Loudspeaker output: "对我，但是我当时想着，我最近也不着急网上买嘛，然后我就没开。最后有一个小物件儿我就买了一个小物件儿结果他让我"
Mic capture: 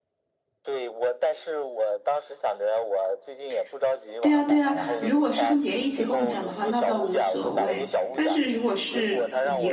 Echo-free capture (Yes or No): No